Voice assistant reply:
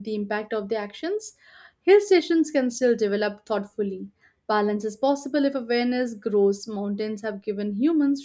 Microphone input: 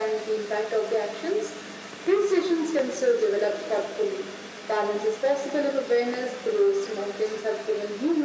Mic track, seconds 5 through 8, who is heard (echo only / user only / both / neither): echo only